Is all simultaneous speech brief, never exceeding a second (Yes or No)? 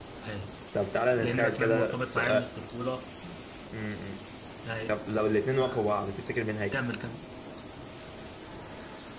No